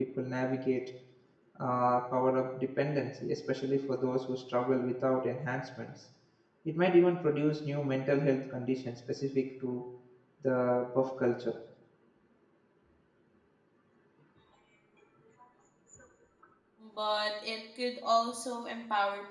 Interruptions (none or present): none